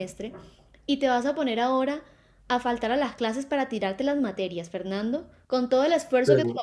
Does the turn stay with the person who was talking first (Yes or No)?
Yes